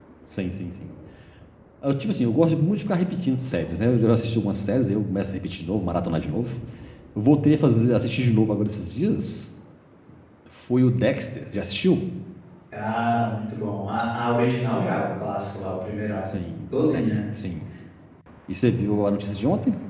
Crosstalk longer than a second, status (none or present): none